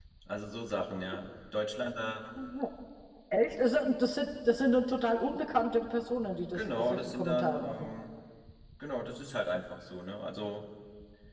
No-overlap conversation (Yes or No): No